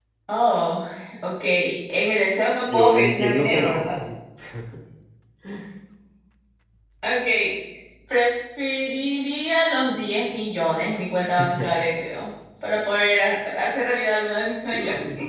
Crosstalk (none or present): present